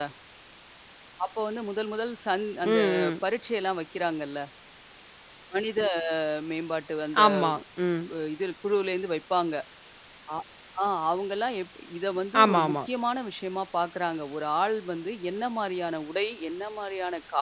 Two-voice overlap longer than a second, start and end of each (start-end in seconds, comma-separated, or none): none